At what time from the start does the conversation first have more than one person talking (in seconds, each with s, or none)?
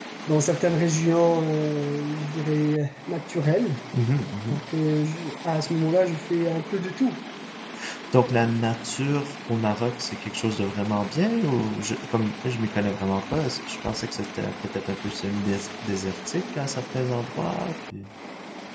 none